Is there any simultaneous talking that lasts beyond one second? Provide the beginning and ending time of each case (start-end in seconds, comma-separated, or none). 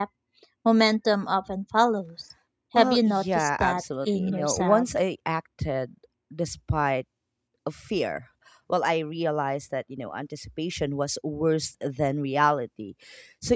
2.8-4.8